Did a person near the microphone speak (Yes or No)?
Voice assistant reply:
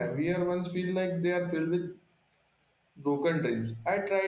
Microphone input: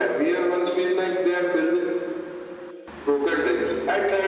No